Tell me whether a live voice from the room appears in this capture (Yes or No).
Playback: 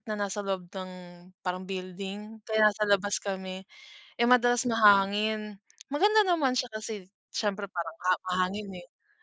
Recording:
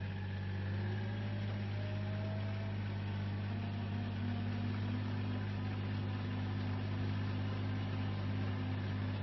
No